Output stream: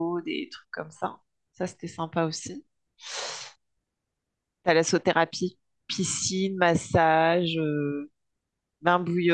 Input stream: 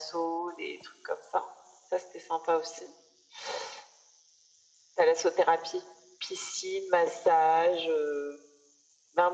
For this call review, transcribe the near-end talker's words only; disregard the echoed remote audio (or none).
none